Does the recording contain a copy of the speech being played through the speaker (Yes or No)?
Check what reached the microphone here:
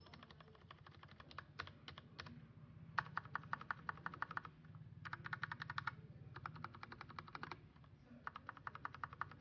No